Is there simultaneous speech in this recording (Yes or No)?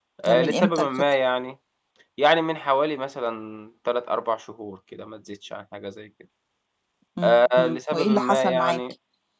Yes